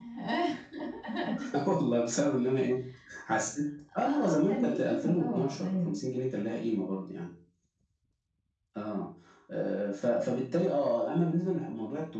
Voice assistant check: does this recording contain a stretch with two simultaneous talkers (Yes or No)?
Yes